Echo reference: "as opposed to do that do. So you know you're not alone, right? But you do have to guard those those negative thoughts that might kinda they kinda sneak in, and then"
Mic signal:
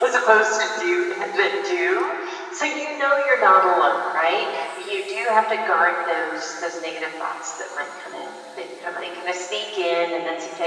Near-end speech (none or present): none